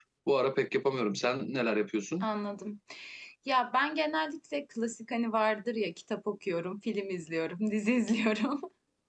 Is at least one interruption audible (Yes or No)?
No